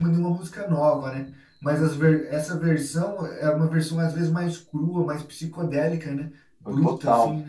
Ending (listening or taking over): taking over